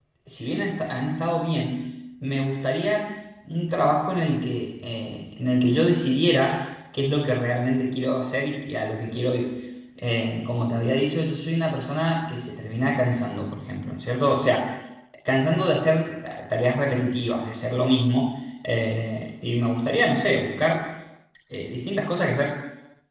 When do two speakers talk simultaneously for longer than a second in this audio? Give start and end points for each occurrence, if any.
none

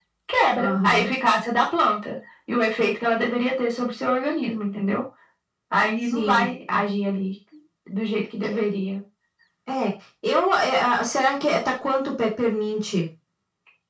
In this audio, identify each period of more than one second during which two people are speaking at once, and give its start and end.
none

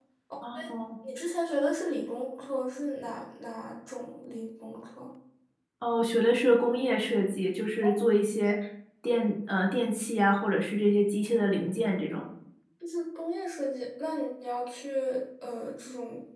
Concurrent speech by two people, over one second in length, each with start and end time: none

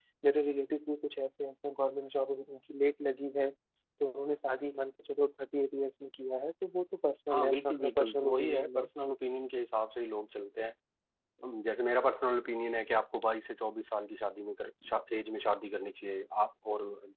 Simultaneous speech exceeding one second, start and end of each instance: 7.3-8.9

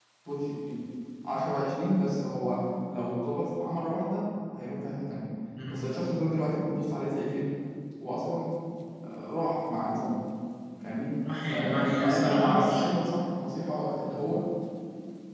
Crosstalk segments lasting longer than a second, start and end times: 11.5-12.8

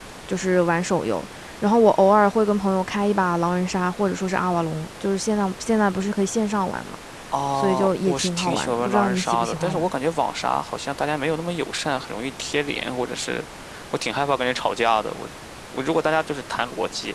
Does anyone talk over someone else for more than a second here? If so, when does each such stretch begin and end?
7.5-9.9

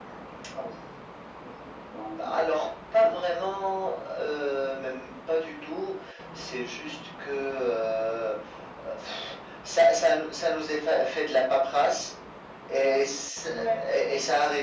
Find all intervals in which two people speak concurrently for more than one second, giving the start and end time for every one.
none

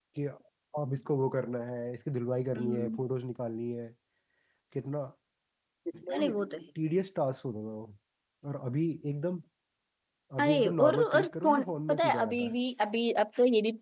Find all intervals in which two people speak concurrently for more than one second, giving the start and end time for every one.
10.4-12.5

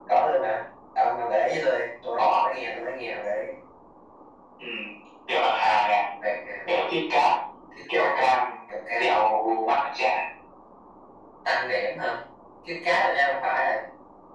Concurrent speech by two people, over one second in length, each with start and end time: none

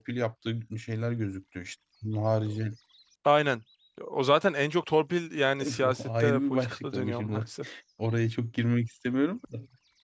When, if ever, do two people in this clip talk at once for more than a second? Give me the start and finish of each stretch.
5.6-7.4

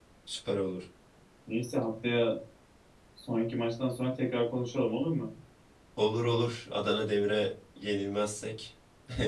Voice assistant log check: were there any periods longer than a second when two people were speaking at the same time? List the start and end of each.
none

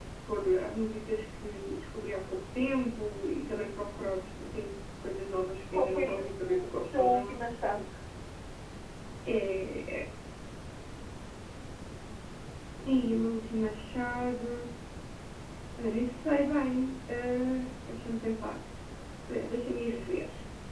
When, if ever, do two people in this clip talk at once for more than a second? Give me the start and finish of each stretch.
5.7-7.4

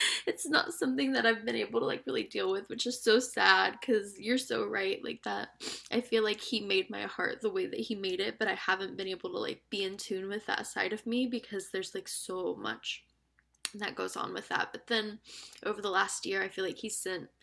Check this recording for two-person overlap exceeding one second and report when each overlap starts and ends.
none

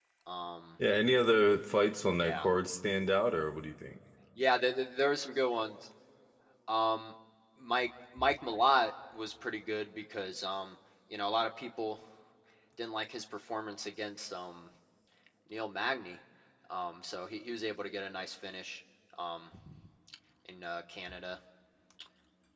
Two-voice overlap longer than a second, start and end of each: none

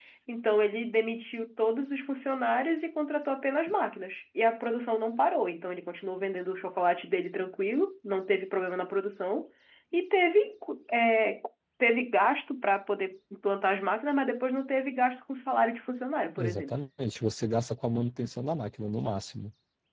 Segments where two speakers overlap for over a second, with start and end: none

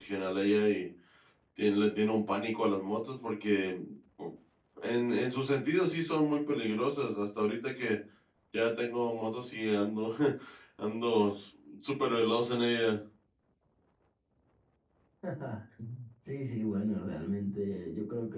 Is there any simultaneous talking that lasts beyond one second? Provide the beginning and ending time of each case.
none

